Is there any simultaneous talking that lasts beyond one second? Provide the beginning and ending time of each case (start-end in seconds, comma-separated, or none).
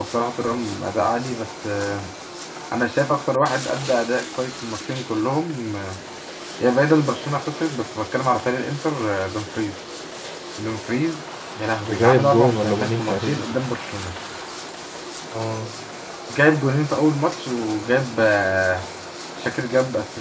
11.8-13.4